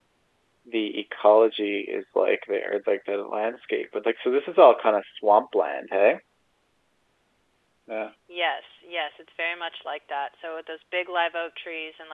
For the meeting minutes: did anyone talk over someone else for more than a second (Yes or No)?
No